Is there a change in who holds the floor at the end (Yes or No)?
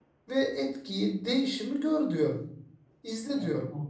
Yes